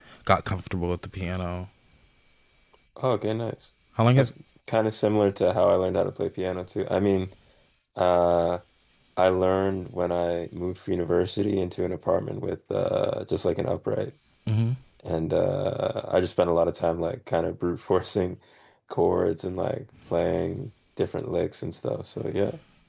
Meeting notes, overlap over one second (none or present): none